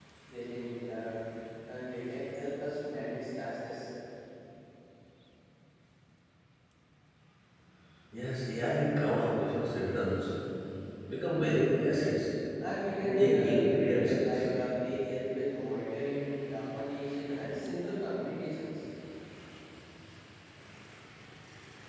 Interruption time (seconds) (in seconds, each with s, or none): 13.0 s